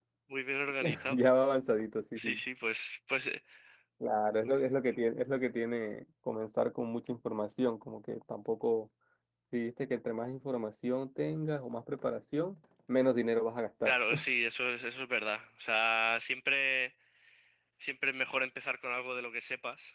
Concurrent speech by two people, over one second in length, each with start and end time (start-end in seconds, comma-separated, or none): none